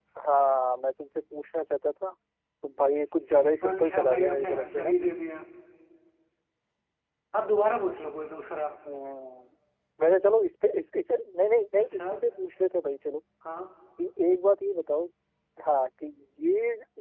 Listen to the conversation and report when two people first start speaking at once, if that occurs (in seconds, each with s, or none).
2.9 s